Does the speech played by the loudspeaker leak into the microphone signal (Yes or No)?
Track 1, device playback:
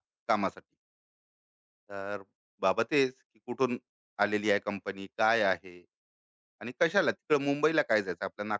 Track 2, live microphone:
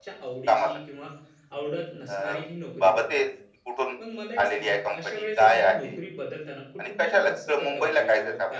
Yes